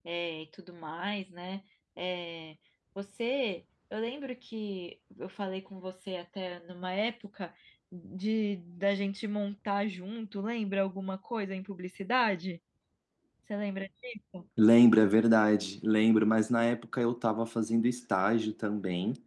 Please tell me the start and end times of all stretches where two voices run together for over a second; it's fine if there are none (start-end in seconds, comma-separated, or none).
none